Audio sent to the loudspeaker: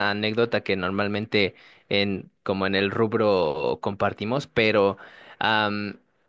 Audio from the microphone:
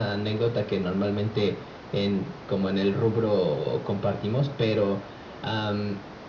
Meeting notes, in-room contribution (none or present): none